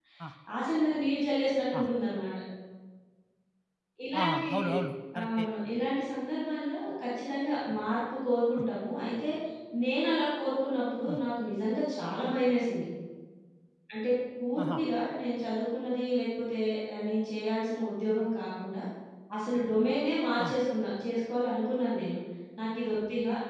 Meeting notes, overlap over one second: none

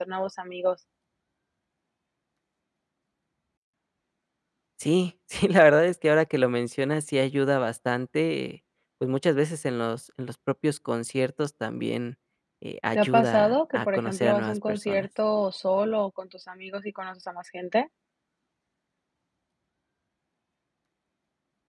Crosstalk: present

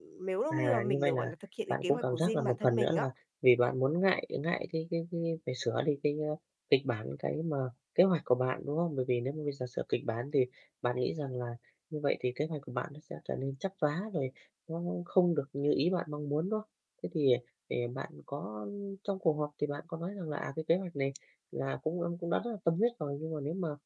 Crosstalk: present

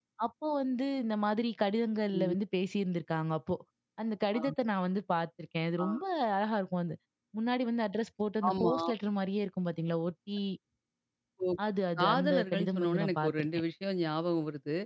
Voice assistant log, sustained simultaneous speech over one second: present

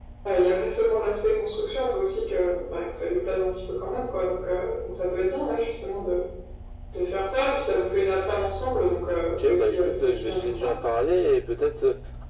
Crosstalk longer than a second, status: present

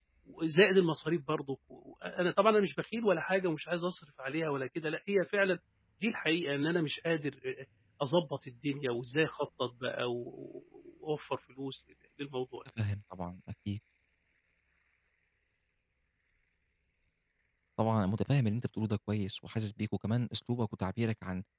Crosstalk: none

